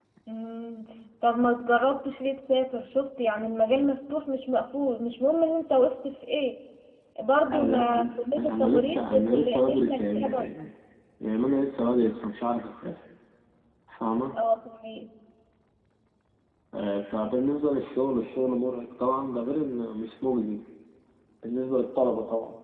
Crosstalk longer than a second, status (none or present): present